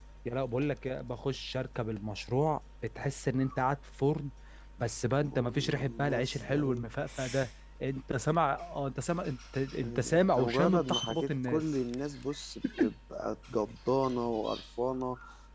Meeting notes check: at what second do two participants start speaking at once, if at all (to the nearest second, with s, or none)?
5 s